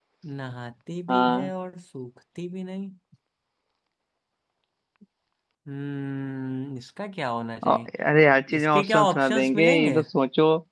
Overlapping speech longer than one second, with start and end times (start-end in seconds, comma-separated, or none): 8.6-10.0